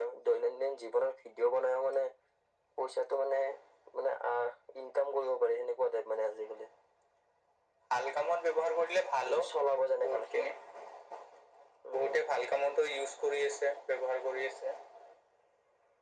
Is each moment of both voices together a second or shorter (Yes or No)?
Yes